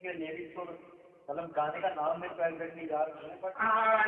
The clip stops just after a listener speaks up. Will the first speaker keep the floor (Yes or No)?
No